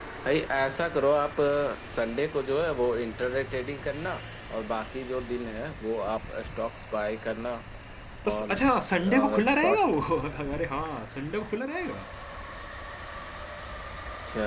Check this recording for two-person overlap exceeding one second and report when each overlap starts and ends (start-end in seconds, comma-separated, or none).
8.3-9.8